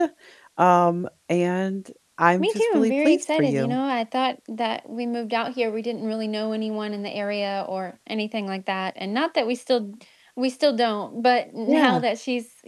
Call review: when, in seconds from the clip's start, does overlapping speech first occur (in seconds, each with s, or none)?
2.4 s